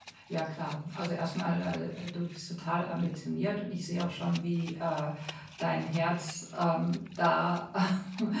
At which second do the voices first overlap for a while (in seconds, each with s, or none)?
none